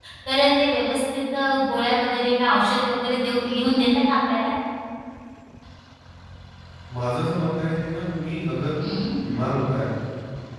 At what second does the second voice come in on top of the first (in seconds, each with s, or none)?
none